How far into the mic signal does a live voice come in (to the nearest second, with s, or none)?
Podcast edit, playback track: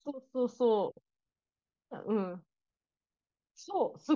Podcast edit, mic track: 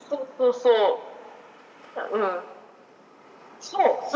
none